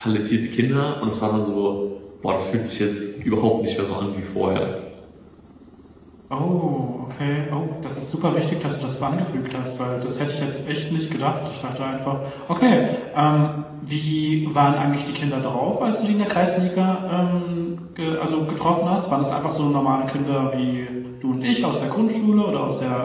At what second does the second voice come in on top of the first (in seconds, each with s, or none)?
none